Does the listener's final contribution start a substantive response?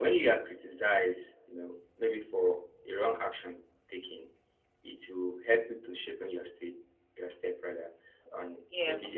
Yes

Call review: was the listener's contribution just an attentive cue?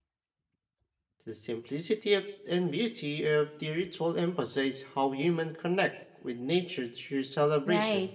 No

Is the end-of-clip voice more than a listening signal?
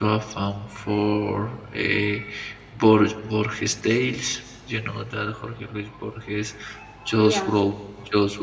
No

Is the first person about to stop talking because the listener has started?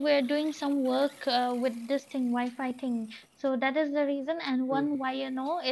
No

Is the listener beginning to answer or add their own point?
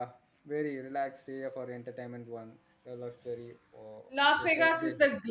Yes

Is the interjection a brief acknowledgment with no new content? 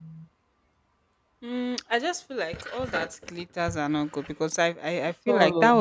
Yes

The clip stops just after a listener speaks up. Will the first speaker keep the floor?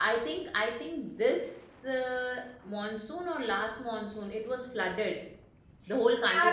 No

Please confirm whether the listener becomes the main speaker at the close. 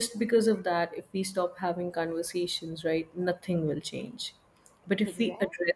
No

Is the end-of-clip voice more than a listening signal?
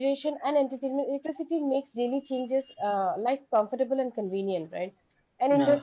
No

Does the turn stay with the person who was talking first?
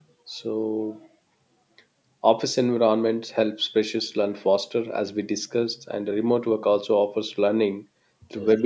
Yes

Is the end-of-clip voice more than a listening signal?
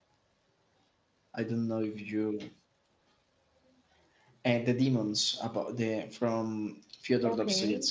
Yes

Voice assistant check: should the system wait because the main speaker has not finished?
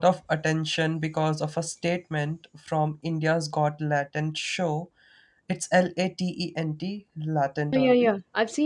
No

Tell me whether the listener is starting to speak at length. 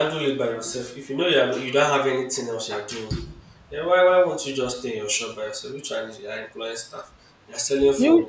No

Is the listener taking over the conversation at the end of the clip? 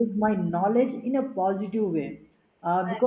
No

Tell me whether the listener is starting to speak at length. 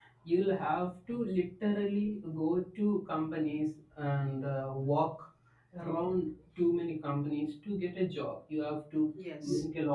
No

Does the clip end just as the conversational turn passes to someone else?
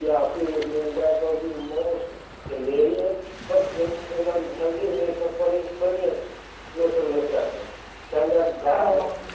No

